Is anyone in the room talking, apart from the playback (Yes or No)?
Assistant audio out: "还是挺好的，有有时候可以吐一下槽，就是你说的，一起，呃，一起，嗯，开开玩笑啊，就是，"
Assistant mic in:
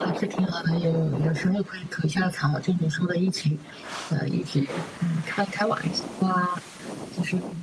No